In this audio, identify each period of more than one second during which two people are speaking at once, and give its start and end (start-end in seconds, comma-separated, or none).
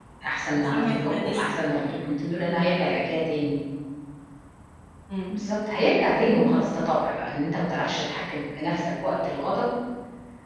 0.6-1.8